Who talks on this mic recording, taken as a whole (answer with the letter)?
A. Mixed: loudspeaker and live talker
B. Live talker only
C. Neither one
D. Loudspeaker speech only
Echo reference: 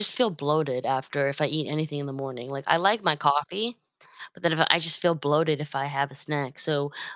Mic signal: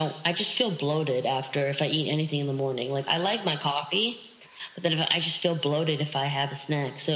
D